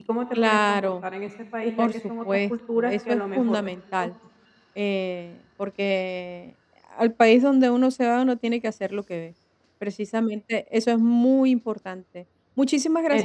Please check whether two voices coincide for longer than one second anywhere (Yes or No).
Yes